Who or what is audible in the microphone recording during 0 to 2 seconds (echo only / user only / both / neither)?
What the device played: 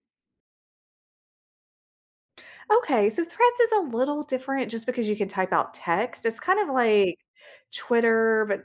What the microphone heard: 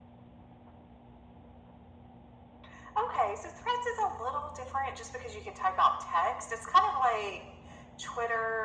neither